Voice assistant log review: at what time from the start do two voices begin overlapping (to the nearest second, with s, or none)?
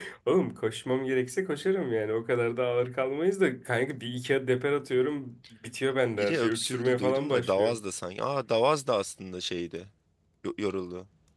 6 s